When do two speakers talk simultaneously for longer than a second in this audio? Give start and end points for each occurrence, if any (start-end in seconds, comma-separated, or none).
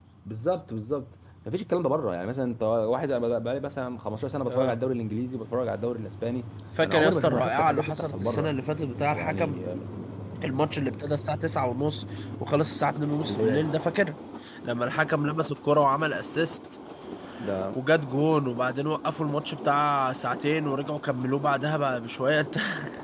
6.8-8.5